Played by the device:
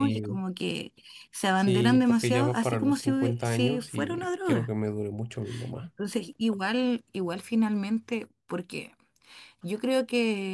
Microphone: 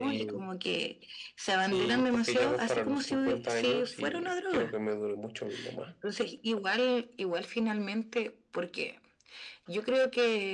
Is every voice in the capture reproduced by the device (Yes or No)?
Yes